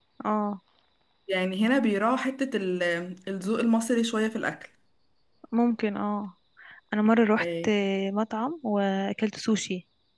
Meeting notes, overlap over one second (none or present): none